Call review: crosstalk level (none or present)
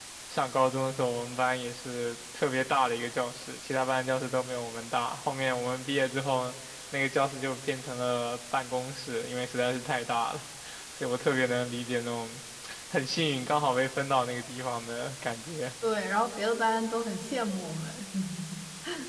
none